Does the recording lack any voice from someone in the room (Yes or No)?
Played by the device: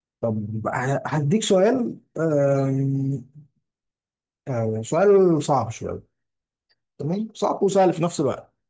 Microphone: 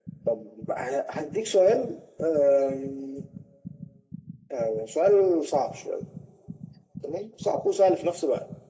Yes